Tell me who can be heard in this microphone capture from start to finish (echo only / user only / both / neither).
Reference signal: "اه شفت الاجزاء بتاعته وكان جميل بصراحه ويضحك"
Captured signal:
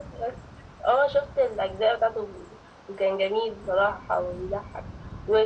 echo only